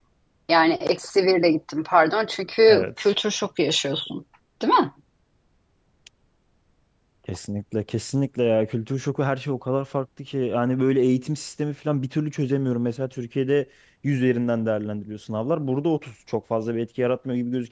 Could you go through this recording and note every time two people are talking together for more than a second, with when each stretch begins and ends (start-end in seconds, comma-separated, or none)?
none